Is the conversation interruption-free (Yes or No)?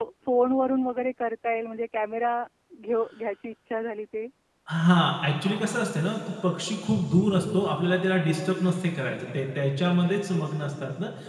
Yes